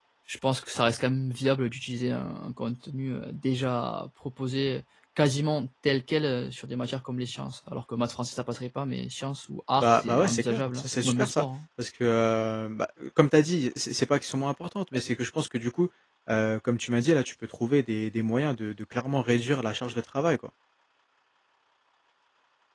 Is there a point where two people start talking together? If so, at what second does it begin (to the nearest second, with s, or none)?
10 s